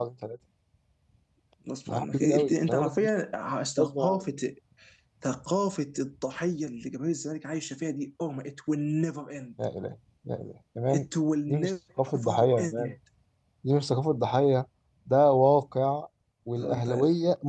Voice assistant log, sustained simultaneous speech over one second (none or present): present